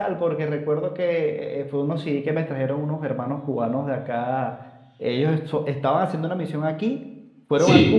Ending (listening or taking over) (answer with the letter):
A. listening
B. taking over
A